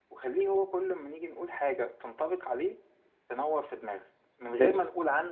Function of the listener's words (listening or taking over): listening